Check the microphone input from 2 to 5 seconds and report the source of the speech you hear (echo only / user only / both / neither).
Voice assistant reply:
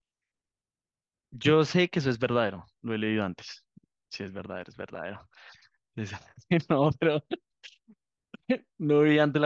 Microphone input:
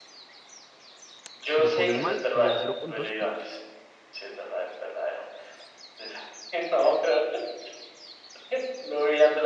both